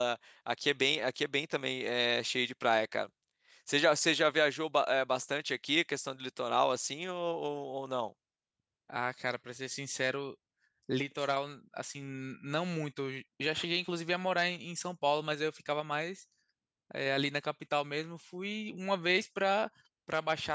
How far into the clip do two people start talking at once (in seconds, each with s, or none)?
none